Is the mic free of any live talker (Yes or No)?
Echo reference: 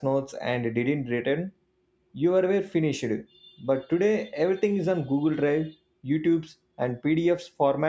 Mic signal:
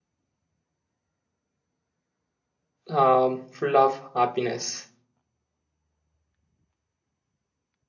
No